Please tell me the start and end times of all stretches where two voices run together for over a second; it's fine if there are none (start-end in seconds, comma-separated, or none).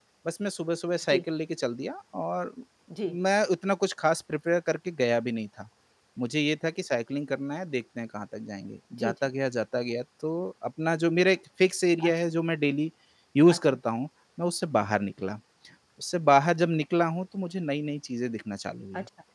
none